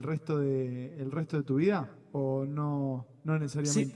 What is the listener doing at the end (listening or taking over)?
taking over